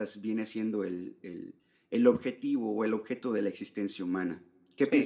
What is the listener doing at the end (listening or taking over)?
taking over